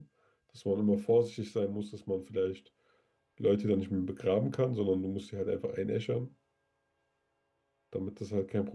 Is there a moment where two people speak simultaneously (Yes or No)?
No